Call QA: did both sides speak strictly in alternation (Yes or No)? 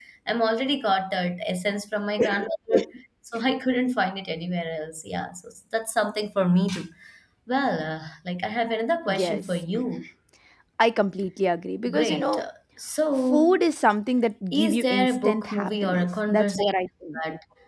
No